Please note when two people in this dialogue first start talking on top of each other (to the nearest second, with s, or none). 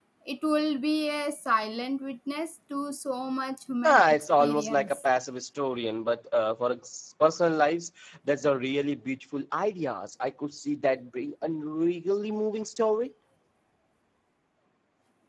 4 s